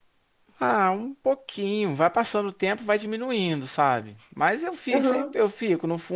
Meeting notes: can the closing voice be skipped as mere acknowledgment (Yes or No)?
Yes